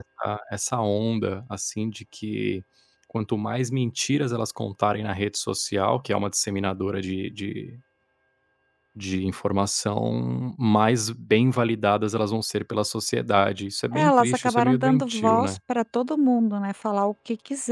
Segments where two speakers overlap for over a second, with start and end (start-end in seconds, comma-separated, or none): 13.9-15.6